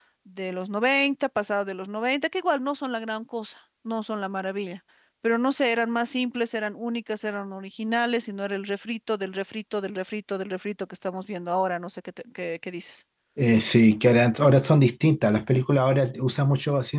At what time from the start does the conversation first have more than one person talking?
none

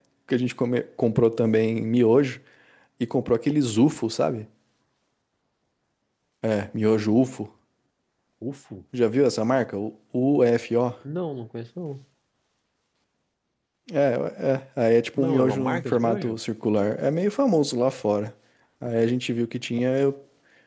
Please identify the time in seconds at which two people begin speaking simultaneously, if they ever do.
15.2 s

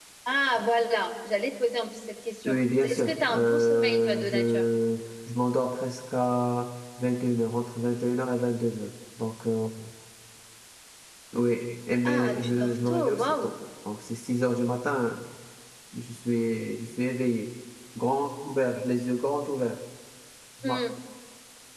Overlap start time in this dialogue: 2.5 s

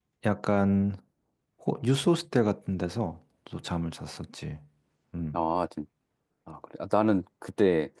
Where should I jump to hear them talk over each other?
none

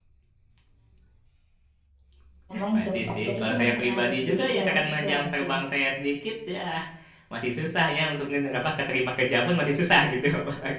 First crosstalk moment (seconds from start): 2.7 s

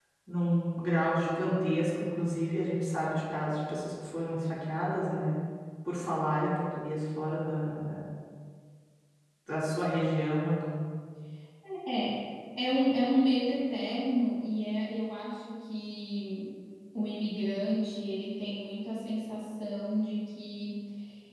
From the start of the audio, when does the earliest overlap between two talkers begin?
none

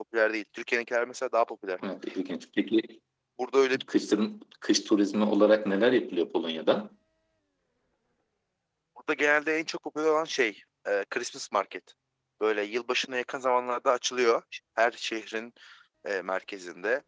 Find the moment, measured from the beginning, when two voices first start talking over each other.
none

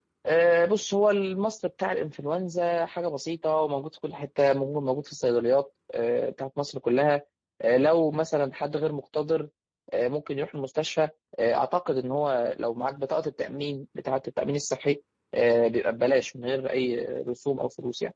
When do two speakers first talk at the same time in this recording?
none

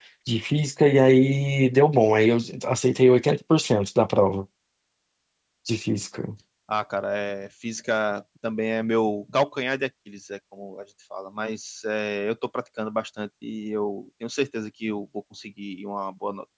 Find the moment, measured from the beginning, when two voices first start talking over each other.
none

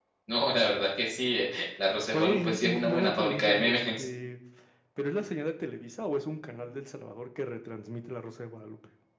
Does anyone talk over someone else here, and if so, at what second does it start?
1.9 s

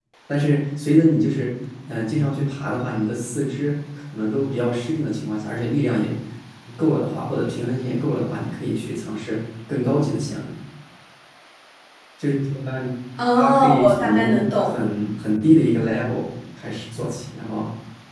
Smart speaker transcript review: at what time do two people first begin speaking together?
13.4 s

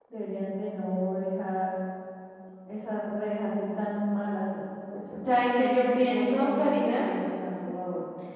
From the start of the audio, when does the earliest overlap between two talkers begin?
5.3 s

